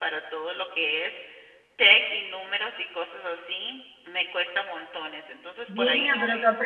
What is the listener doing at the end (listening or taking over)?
taking over